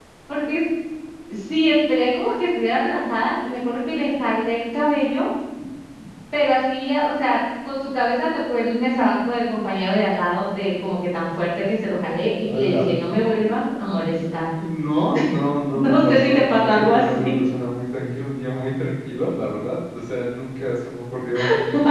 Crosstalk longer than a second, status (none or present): present